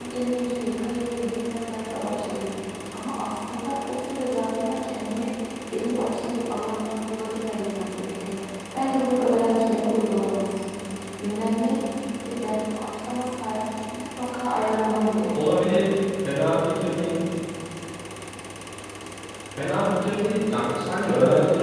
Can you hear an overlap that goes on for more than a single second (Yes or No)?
No